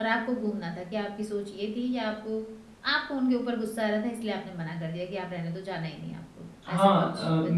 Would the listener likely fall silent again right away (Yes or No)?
No